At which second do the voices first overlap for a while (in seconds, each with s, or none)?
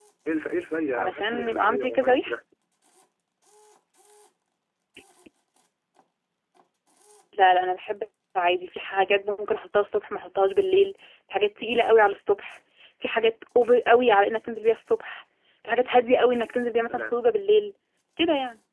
0.9 s